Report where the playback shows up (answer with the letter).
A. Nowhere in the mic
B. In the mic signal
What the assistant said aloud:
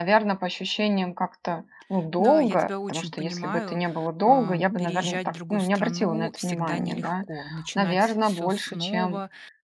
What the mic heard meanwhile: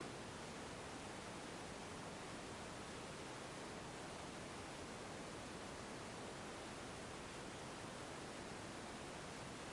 A